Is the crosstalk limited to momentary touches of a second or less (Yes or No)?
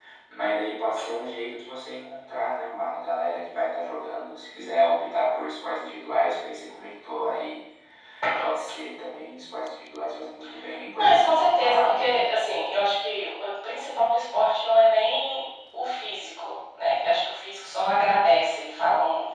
No